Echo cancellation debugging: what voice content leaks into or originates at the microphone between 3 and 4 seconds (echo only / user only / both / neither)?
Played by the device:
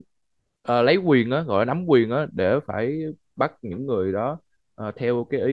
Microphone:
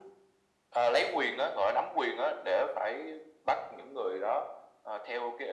echo only